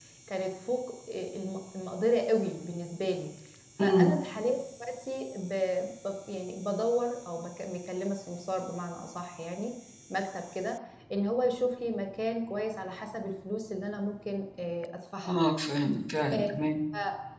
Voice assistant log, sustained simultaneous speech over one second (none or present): none